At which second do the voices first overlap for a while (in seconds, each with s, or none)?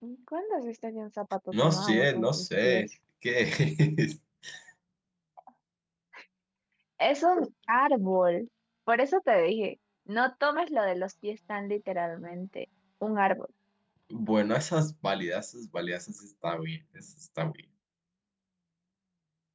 1.5 s